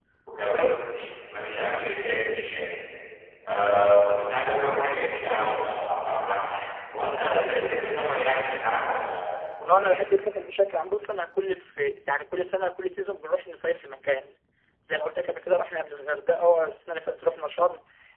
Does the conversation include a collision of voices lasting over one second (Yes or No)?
No